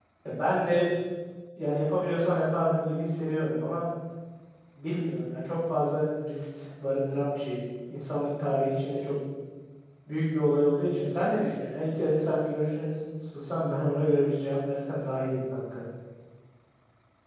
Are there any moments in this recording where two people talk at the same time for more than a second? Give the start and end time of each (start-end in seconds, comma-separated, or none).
none